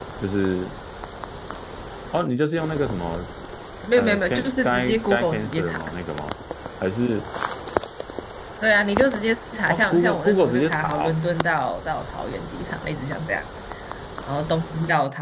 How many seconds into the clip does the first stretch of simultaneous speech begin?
4 s

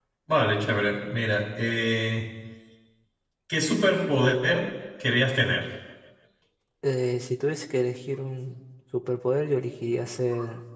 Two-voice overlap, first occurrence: none

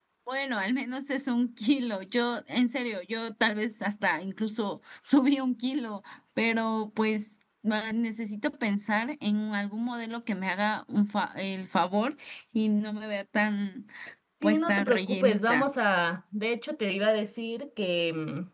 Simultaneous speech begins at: 14 s

